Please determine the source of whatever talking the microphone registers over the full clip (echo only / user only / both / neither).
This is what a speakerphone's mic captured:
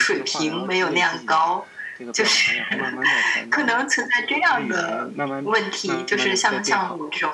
both